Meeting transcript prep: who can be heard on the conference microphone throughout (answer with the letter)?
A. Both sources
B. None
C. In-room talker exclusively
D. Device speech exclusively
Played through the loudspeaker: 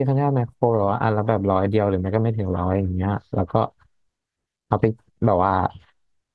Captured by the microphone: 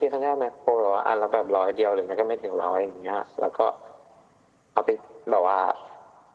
D